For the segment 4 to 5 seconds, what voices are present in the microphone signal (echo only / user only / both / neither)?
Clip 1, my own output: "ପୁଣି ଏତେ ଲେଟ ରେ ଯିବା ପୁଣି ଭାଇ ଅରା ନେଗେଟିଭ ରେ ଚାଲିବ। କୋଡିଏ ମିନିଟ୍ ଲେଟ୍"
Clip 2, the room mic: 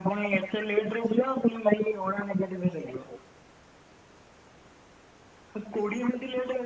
neither